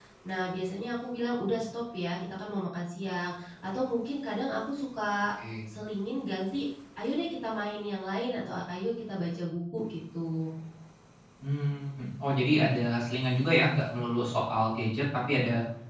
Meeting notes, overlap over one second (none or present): none